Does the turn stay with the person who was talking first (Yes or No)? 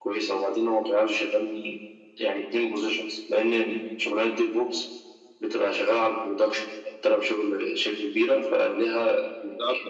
No